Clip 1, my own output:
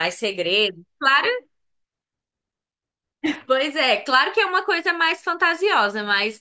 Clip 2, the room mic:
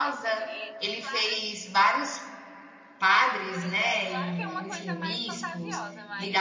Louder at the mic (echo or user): user